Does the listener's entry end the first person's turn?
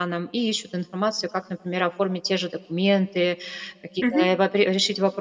No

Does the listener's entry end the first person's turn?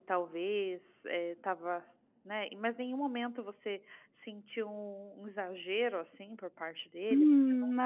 Yes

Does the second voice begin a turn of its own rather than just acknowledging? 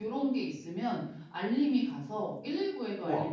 No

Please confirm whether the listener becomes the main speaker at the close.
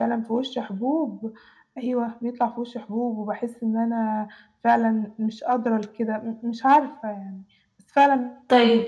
Yes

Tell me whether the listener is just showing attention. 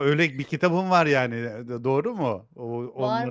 No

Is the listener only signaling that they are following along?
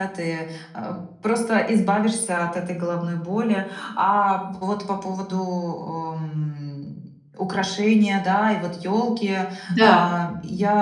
Yes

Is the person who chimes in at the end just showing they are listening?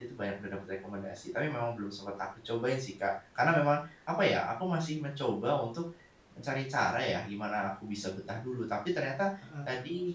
Yes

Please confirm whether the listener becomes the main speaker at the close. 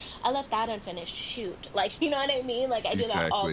No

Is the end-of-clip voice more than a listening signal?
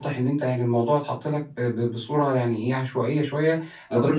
No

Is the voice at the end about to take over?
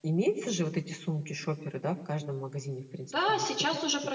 Yes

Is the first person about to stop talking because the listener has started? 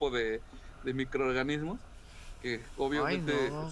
No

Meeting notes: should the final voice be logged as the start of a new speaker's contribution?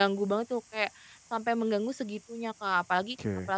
No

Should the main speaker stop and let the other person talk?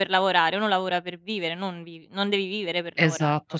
Yes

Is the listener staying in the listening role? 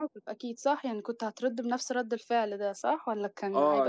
No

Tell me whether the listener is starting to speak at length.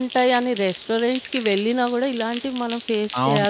Yes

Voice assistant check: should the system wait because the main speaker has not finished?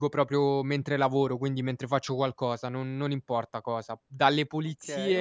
Yes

